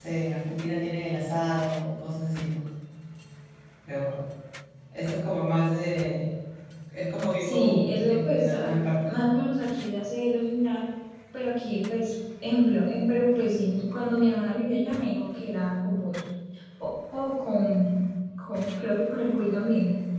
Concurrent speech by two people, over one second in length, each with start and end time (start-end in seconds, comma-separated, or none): 7.4-9.2